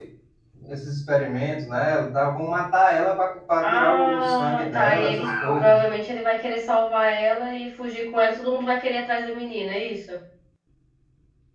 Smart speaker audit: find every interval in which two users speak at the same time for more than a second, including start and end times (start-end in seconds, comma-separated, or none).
3.6-5.8